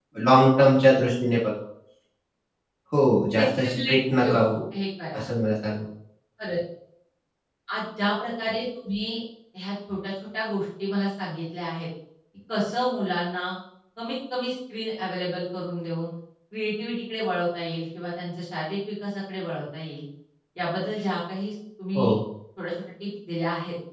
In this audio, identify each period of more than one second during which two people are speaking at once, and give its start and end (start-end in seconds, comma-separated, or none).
3.3-4.5